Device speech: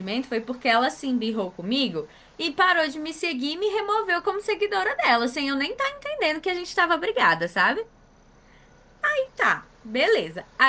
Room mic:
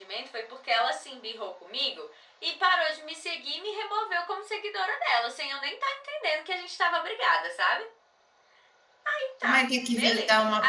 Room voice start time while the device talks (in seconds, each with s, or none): 9.5 s